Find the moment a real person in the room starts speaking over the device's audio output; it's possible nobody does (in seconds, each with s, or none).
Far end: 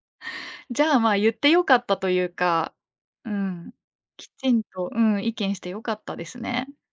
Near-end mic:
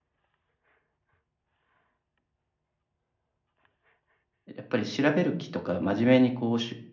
4.4 s